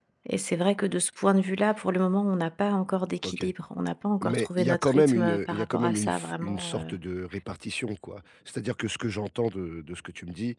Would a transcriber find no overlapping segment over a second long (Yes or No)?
No